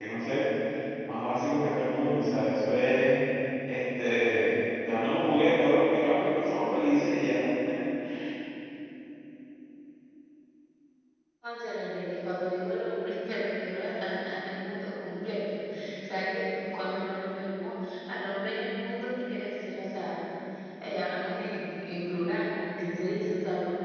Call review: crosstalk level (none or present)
none